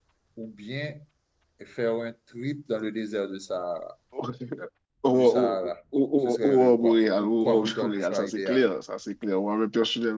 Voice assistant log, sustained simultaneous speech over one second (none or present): present